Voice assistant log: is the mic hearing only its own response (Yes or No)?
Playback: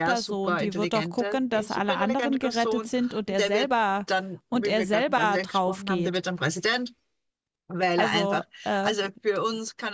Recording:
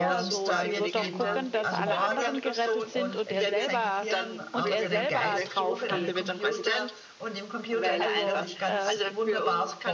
No